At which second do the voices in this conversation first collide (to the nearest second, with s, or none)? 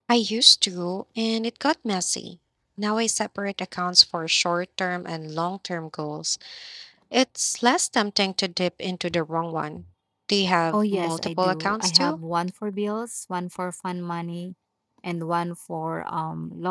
11 s